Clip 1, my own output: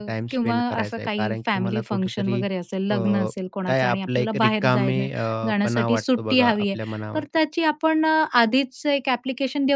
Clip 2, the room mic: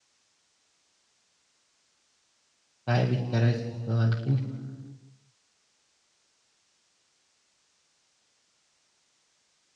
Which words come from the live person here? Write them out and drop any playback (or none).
काय विचारायचं होतं आणखीन?